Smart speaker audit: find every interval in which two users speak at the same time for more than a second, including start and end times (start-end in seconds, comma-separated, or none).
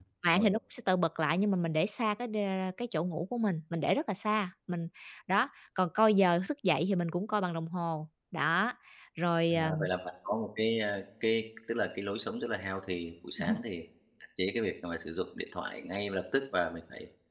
none